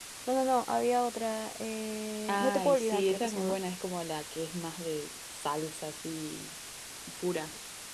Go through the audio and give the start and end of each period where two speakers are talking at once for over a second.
2.3-3.6

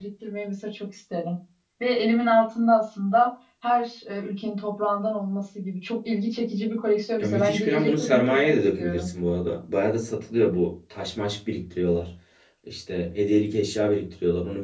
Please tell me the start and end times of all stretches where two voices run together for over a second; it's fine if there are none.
7.2-9.1

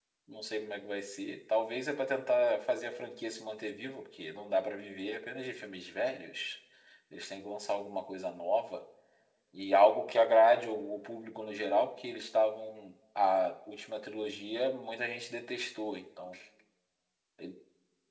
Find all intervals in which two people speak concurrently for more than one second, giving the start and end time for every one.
none

